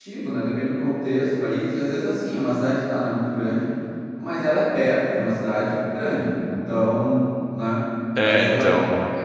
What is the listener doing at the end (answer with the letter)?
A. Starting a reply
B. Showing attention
B